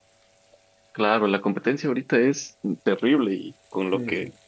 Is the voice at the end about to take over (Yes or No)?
No